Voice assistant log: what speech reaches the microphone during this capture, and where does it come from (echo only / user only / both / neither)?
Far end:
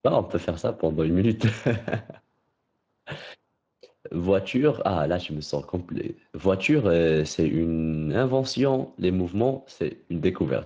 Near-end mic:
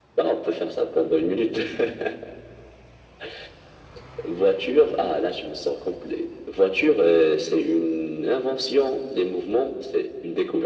echo only